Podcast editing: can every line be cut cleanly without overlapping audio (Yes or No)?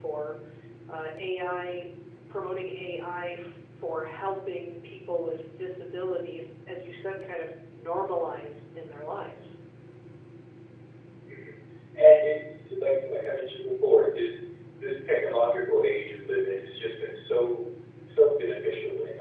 Yes